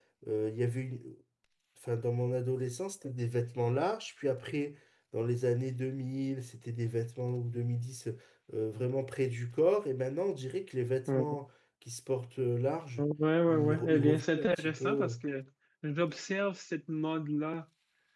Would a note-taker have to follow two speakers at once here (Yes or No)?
Yes